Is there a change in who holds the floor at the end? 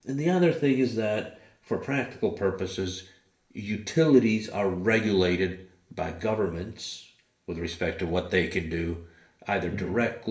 No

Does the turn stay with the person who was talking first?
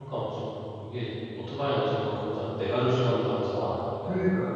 No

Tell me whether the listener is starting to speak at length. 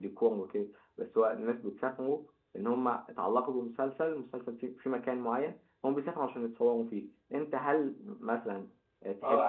Yes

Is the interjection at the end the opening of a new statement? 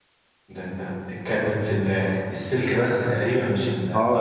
Yes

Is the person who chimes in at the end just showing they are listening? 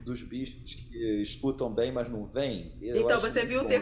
No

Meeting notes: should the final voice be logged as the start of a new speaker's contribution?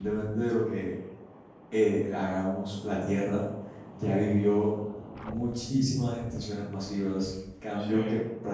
No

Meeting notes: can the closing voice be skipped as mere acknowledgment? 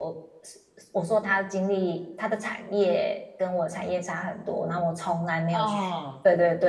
Yes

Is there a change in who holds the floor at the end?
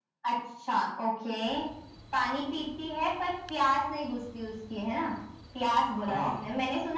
No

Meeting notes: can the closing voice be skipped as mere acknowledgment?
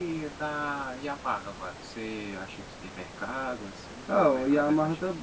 No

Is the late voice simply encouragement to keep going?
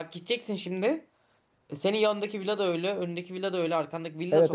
No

